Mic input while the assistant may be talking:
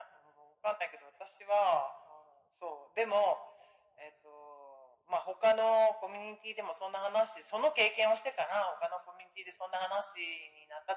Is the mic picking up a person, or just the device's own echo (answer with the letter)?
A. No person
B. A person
A